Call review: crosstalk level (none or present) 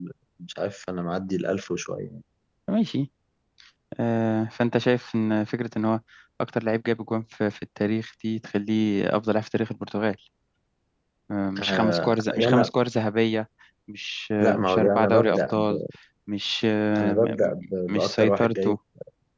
present